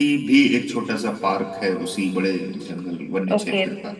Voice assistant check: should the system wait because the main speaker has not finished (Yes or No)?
No